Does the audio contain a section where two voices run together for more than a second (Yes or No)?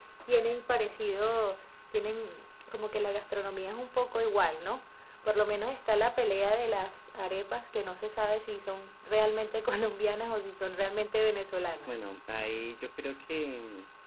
No